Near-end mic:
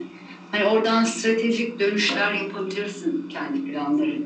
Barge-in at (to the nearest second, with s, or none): none